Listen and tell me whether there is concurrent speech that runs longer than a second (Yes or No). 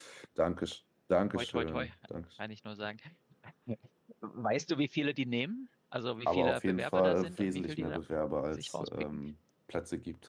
Yes